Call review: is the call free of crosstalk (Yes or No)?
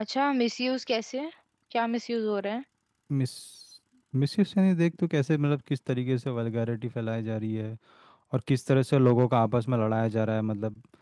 Yes